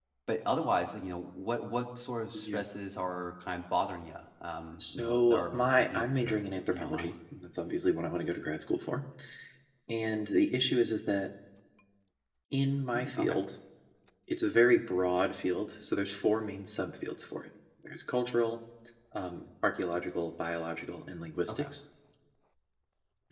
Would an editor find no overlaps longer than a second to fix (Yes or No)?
No